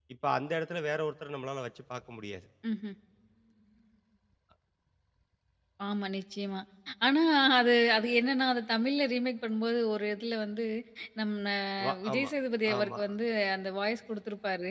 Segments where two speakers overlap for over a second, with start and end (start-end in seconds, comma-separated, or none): none